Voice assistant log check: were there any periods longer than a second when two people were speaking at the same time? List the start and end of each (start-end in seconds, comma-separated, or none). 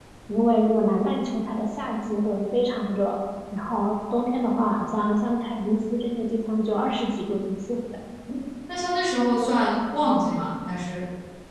none